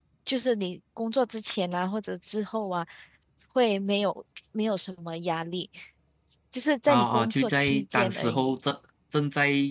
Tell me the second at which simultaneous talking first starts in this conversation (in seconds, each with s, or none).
6.9 s